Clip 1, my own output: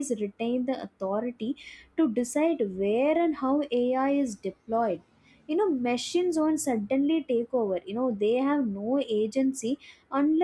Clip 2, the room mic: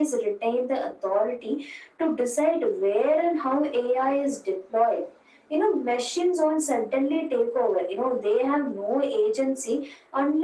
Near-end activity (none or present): none